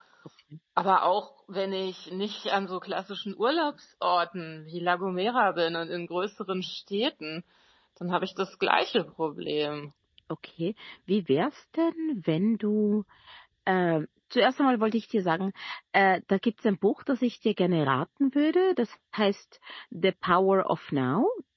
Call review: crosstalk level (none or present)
none